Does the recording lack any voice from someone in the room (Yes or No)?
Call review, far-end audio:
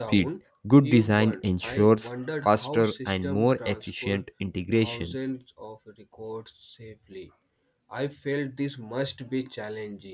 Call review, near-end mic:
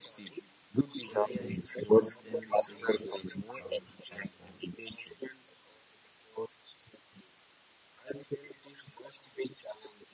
No